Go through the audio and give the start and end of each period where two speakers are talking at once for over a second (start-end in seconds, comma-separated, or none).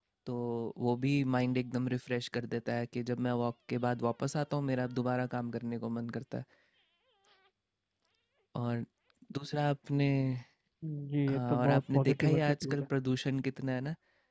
11.3-12.8